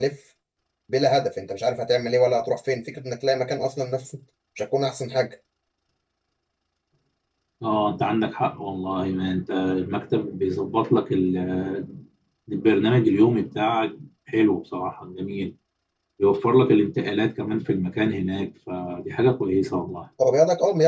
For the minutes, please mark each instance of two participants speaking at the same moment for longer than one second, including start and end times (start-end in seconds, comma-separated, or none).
none